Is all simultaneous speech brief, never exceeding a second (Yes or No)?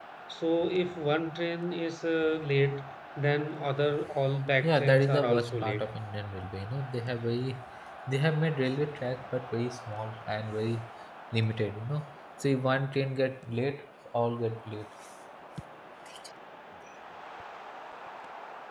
No